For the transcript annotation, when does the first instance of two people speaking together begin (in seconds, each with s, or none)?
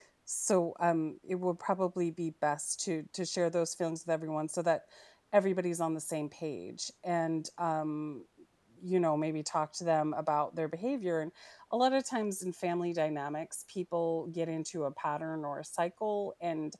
none